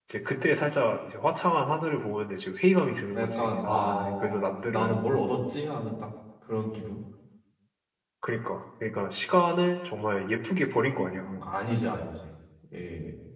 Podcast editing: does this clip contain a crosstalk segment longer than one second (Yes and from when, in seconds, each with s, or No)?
Yes, from 3.1 s